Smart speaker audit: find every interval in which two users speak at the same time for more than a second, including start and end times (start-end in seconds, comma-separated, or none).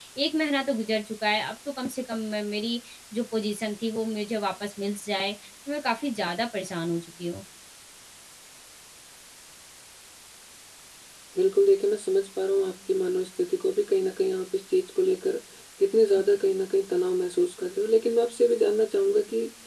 none